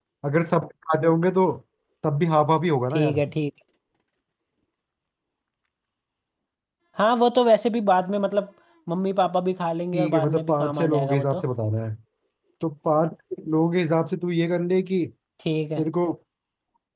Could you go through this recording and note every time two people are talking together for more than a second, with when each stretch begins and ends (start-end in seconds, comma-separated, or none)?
9.9-11.4